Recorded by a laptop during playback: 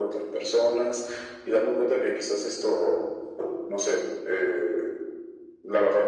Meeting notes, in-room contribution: none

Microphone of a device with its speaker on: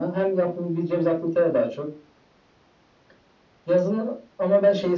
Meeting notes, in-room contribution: none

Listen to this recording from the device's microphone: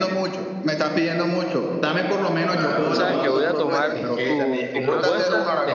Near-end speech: present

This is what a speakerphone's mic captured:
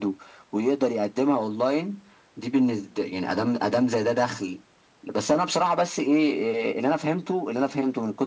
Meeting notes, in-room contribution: none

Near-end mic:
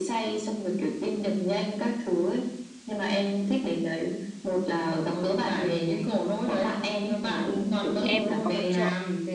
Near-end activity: present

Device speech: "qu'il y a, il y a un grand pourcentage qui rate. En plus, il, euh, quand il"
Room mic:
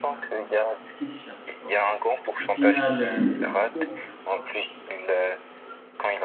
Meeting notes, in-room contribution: present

